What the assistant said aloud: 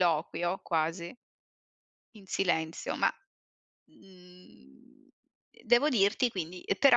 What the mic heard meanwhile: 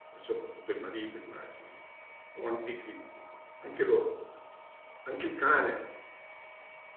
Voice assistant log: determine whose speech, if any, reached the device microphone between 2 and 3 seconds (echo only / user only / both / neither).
user only